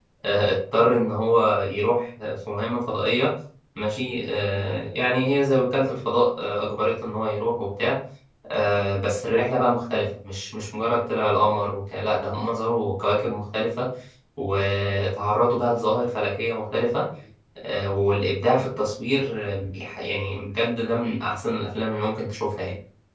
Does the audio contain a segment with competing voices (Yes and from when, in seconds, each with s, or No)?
No